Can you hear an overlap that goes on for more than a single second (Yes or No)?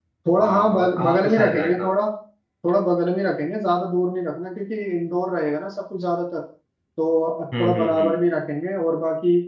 Yes